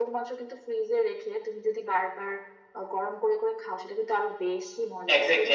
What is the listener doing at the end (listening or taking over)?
taking over